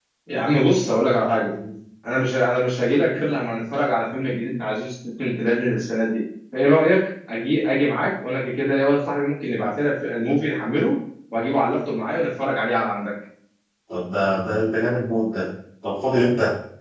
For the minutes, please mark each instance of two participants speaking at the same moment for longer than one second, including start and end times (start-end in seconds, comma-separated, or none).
none